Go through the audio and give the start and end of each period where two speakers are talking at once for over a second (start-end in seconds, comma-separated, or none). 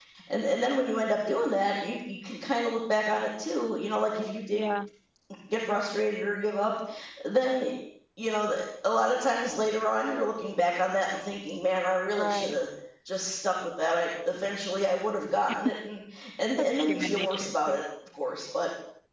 16.6-17.8